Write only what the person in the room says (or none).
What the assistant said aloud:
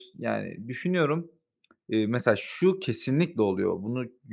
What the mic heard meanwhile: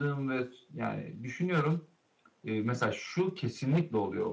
none